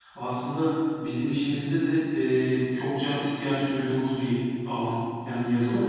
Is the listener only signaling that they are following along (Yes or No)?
No